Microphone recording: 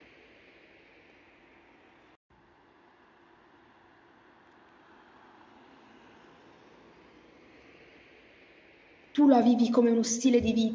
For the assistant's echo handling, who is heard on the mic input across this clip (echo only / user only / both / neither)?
user only